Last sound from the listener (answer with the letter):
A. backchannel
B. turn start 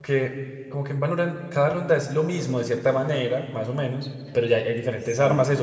A